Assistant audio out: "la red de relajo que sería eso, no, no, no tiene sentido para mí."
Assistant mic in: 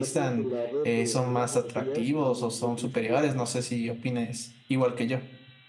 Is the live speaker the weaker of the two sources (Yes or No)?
No